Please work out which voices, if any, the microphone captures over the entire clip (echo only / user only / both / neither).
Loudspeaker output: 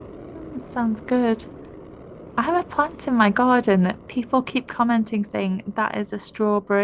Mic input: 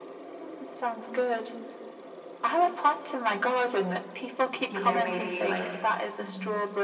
both